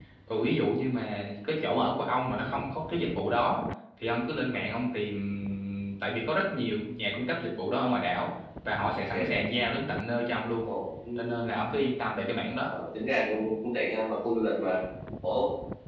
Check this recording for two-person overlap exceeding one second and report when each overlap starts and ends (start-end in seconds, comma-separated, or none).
none